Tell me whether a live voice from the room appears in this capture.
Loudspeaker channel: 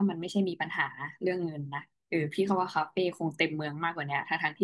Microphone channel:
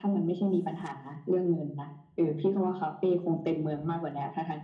No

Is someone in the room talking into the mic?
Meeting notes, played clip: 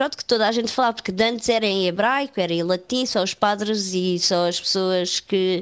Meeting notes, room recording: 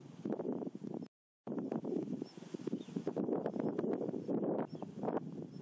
No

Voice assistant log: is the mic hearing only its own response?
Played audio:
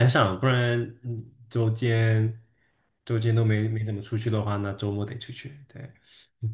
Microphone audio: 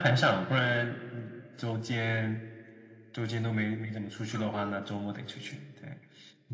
No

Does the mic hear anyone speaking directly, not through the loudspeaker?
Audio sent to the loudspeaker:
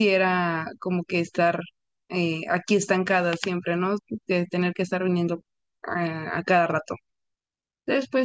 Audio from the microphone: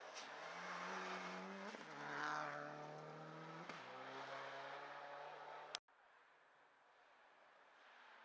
No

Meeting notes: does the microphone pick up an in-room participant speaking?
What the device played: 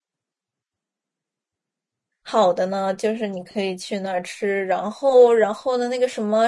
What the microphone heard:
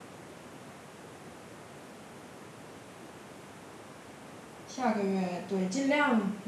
Yes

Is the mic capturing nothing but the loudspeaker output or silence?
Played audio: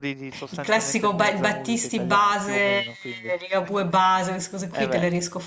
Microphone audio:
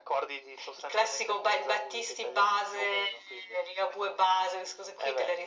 Yes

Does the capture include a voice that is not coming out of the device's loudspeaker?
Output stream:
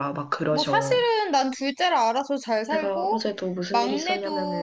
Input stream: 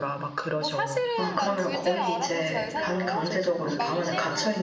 Yes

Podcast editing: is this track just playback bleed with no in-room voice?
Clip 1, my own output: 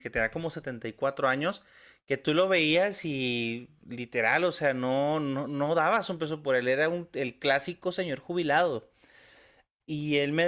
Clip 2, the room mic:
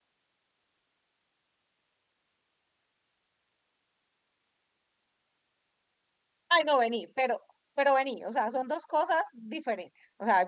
No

